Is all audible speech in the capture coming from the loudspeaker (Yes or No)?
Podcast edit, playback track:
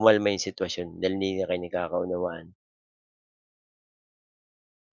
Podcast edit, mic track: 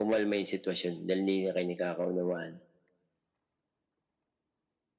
Yes